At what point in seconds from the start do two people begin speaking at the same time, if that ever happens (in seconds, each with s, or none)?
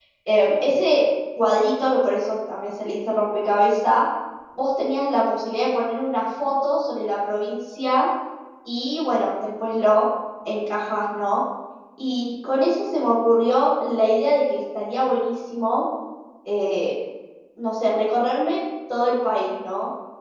none